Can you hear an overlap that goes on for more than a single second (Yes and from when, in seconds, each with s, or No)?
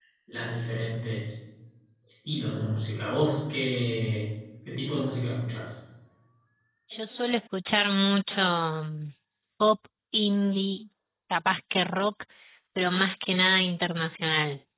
No